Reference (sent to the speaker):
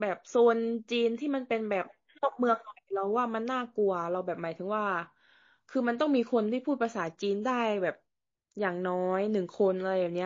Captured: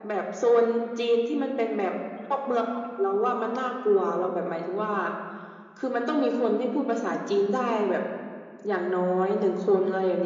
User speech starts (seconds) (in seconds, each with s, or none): none